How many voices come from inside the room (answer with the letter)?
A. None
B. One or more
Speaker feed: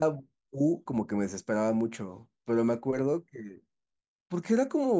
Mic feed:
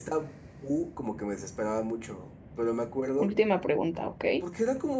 B